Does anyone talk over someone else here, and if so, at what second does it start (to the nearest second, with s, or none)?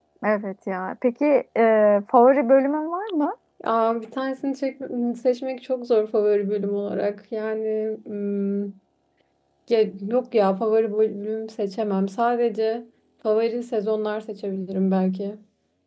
none